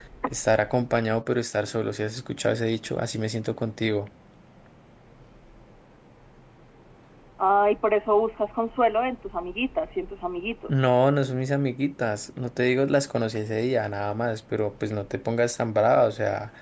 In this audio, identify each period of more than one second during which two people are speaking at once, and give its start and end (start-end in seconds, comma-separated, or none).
none